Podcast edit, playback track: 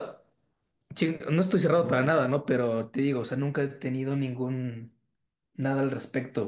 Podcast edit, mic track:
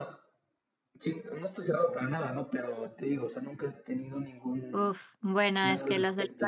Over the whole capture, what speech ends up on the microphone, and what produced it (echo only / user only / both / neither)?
both